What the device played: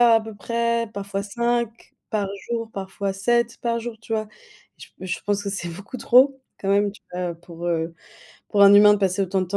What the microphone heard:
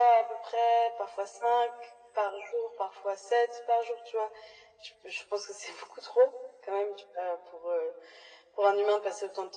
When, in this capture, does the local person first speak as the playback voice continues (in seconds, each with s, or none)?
none